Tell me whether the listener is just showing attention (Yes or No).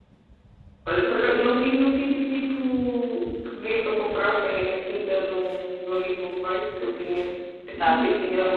Yes